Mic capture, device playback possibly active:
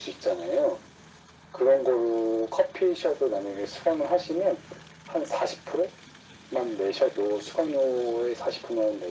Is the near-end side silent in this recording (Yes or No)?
Yes